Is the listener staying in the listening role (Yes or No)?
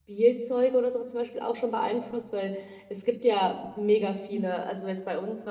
Yes